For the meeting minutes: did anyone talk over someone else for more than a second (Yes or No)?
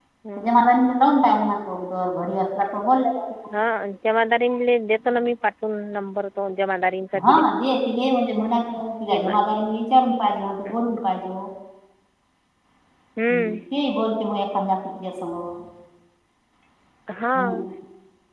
No